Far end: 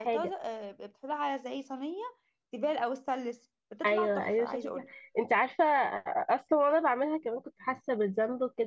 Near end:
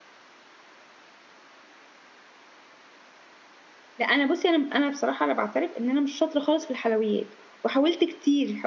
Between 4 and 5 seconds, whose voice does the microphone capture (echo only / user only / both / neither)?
user only